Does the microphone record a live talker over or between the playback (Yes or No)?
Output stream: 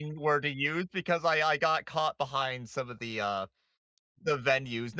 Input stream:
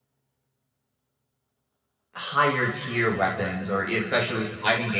Yes